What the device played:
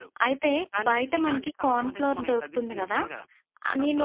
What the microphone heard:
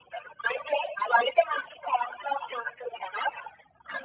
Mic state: echo only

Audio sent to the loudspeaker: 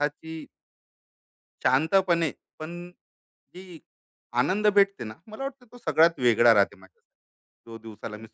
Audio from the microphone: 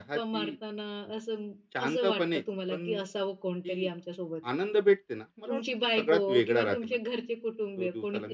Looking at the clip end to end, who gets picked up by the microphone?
both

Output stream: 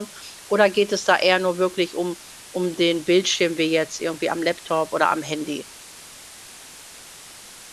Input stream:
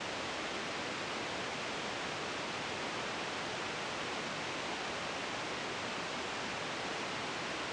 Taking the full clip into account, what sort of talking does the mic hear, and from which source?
neither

